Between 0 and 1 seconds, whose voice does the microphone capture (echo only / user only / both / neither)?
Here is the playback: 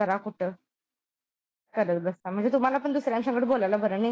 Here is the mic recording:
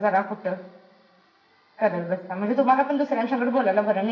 echo only